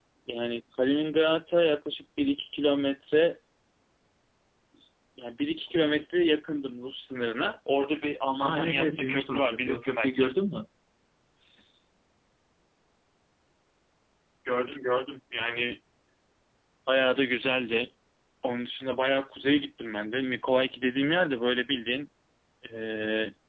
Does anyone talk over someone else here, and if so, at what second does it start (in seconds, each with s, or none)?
8.4 s